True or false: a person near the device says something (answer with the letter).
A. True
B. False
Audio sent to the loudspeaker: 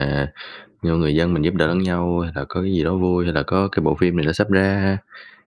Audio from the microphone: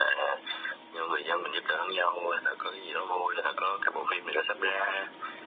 B